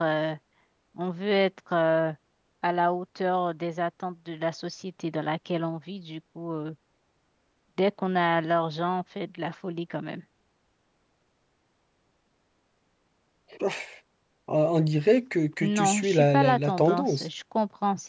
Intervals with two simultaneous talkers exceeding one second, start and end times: 15.6-17.3

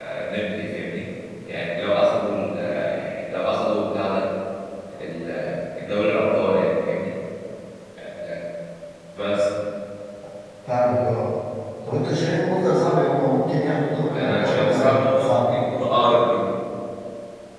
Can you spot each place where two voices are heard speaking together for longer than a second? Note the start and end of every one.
14.1-15.5

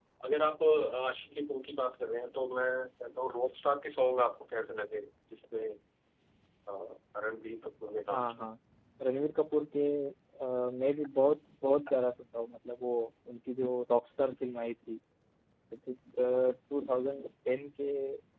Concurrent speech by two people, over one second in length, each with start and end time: none

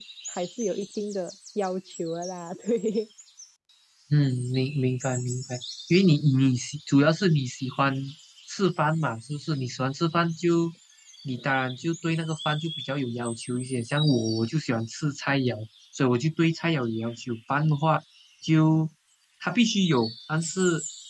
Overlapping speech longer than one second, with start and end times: none

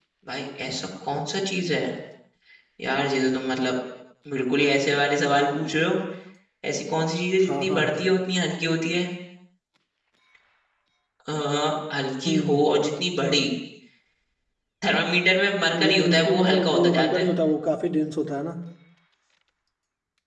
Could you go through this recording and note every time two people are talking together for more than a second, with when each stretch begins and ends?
15.7-17.3

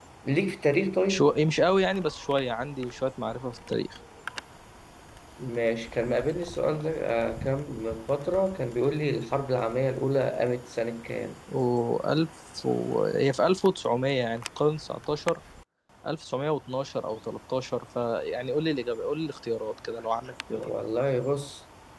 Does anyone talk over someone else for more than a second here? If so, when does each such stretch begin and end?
none

